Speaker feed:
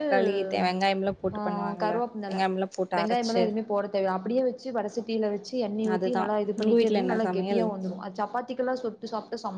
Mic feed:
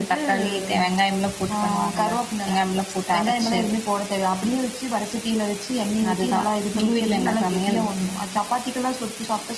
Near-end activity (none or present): none